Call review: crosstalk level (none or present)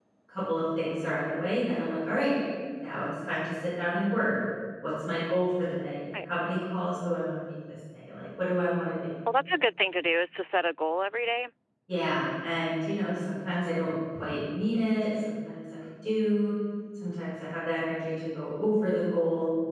none